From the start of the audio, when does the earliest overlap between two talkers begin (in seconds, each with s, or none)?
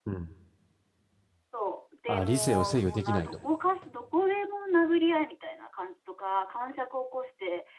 2.1 s